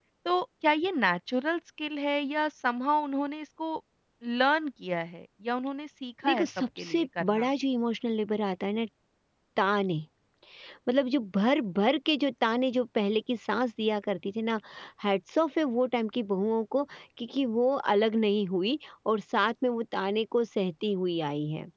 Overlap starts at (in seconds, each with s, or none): 6.2 s